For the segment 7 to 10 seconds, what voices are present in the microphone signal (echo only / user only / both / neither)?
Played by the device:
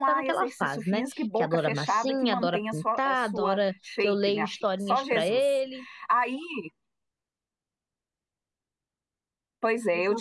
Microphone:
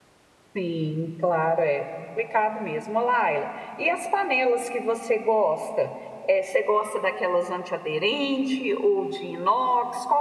user only